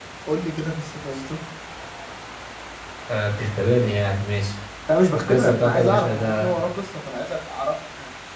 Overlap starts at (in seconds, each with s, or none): 5.3 s